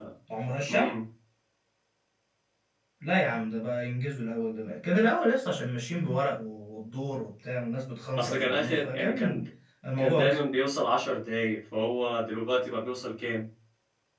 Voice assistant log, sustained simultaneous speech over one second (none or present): present